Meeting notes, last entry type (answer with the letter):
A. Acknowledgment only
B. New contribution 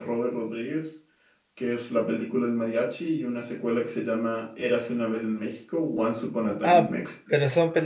B